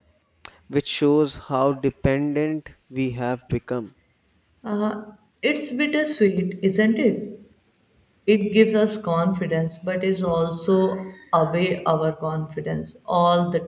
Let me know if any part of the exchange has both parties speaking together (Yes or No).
No